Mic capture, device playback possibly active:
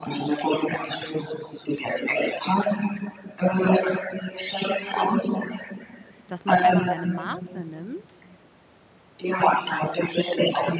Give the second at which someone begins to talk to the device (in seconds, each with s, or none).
6.3 s